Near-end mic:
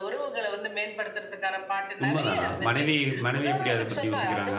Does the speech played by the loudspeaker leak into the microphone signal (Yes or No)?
Yes